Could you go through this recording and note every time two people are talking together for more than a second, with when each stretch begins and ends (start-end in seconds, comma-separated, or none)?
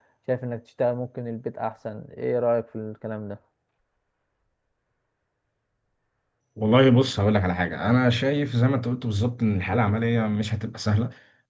none